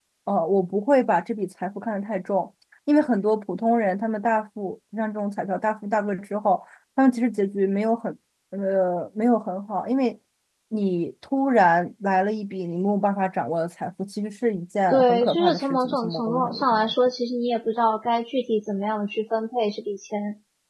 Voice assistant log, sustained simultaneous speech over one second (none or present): present